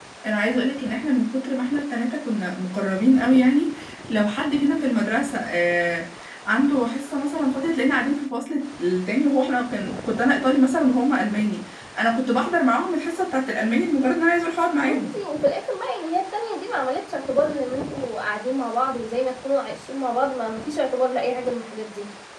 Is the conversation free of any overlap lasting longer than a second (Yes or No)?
Yes